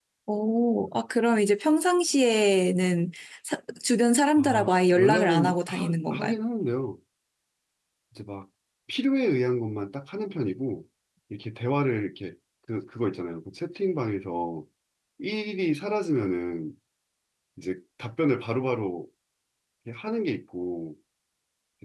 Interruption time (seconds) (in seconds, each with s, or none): 4.4 s